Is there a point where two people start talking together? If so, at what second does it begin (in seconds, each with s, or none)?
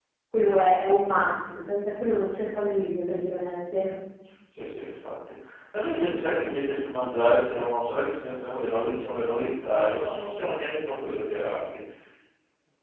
none